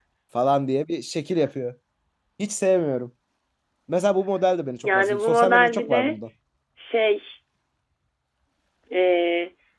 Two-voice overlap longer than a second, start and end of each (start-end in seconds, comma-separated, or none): 4.8-6.1